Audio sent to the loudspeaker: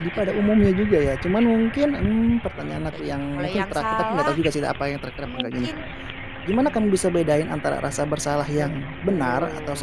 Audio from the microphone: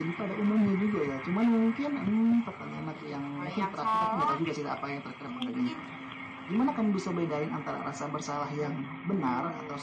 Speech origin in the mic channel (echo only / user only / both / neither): echo only